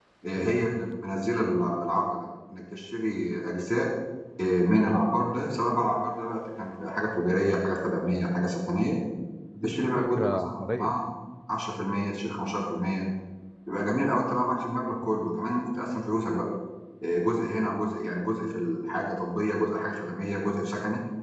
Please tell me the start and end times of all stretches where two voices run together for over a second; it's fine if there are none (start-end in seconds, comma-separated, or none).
9.6-11.0